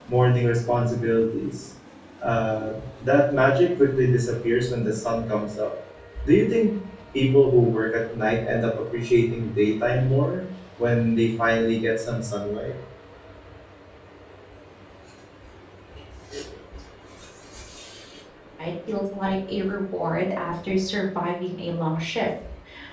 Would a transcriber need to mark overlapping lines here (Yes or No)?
No